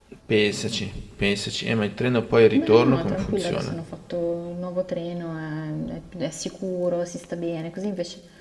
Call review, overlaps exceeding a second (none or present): present